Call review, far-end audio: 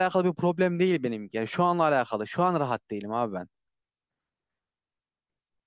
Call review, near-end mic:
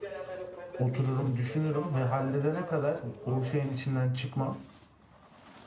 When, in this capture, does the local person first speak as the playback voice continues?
1 s

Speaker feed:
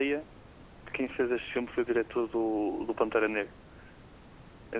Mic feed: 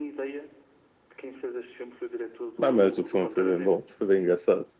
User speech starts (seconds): 3 s

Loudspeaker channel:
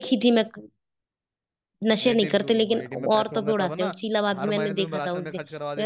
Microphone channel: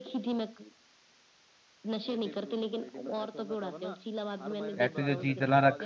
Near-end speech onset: 5 s

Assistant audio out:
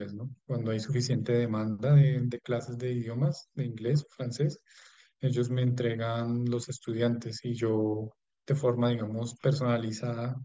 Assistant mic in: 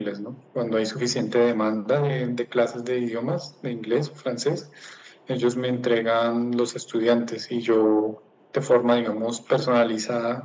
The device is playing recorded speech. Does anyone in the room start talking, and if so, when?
none

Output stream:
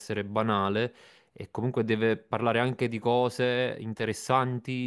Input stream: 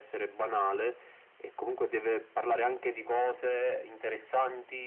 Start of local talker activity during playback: none

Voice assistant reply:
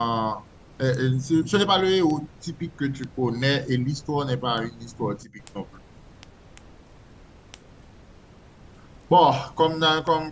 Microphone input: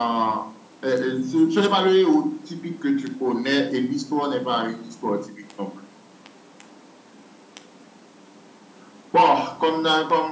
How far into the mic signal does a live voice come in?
none

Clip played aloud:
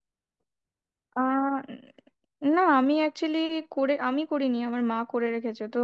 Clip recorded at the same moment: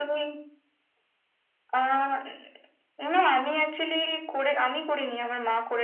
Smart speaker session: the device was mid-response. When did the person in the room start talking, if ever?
none

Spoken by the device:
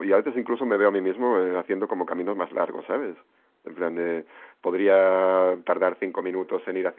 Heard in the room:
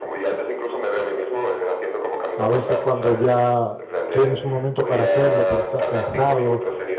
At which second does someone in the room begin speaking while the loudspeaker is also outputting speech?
2 s

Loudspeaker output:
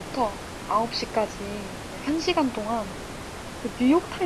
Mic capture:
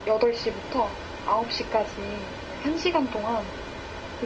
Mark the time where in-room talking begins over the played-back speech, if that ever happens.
none

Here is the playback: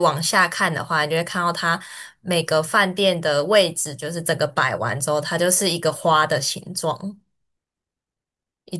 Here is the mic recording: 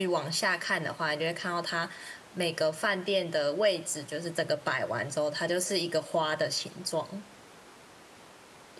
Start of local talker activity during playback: none

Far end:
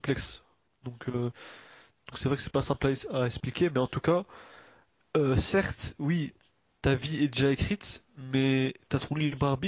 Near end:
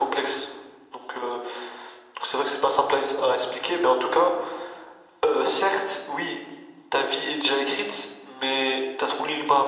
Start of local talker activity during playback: none

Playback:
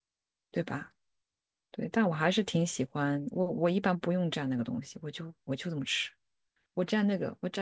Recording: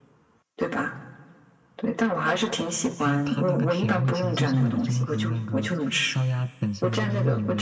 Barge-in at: 3 s

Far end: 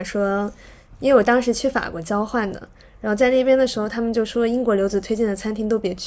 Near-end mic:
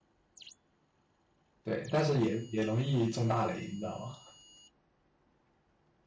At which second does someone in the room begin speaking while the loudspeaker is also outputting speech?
2 s

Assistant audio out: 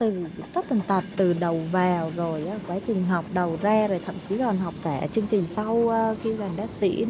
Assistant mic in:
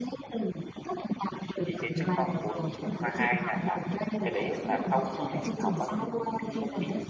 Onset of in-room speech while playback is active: 2 s

